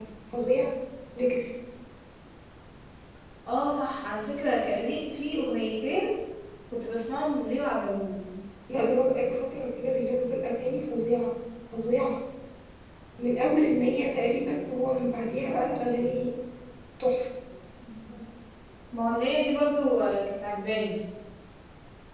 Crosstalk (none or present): none